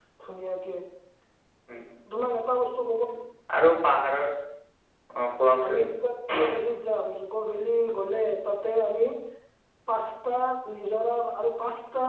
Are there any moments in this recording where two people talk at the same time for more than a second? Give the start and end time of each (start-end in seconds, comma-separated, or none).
none